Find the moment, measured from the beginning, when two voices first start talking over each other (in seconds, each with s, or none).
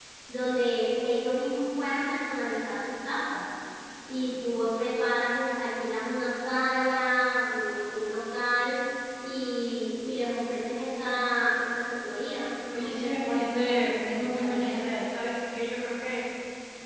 12.7 s